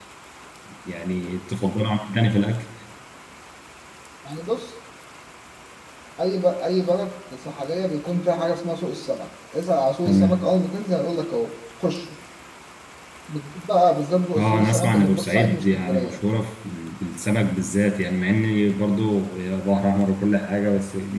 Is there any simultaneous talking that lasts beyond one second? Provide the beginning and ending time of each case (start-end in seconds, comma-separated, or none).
14.4-16.2